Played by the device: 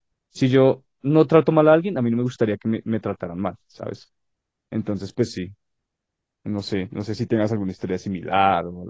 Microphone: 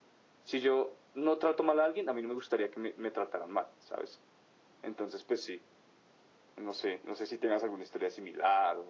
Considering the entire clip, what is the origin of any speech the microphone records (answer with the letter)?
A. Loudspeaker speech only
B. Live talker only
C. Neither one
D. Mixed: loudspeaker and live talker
A